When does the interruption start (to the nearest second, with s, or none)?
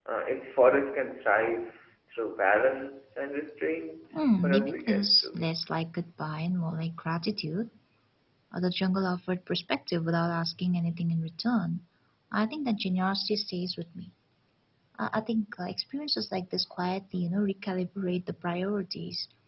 4 s